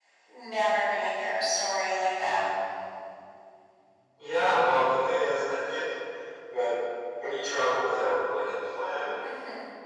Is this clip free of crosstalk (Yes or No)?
Yes